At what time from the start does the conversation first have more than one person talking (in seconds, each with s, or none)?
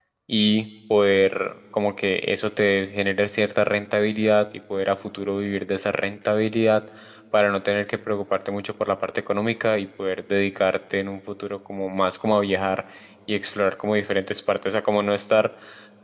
none